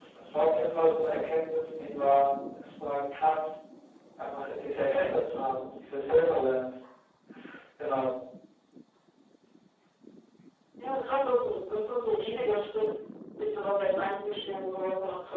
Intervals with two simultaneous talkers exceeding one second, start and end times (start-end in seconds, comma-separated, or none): none